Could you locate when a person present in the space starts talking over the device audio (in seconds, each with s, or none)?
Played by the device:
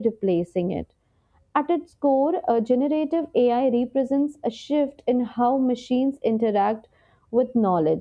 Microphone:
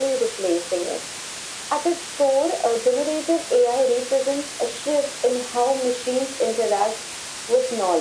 none